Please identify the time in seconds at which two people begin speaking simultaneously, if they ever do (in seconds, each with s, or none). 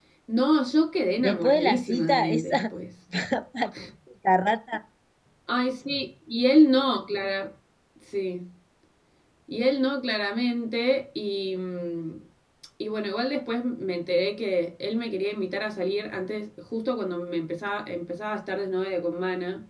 1.2 s